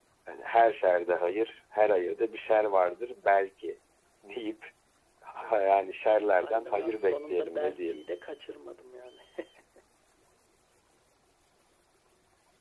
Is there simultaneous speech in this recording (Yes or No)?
Yes